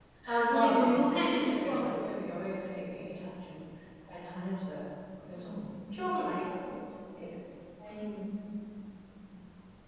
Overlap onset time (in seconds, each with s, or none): 0.5 s